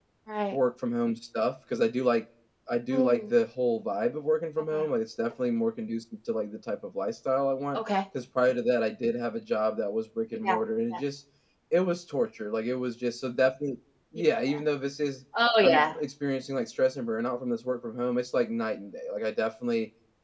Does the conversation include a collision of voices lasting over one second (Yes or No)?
No